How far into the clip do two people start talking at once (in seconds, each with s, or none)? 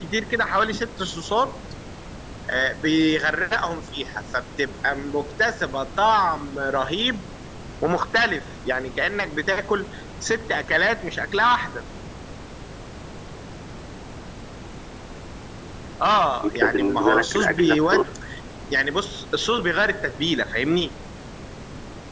16.4 s